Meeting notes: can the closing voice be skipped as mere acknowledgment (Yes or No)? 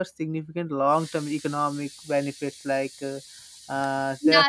No